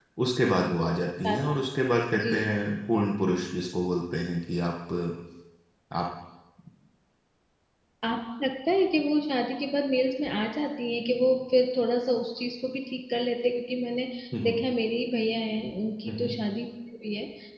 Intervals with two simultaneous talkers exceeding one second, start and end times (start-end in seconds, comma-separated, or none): none